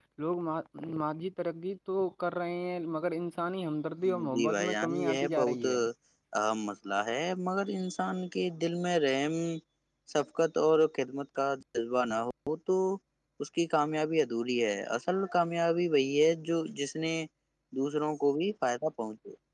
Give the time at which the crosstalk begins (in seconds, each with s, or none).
4.3 s